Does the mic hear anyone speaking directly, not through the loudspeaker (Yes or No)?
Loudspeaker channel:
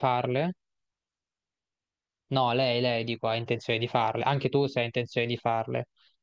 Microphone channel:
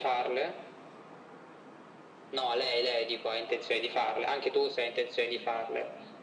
No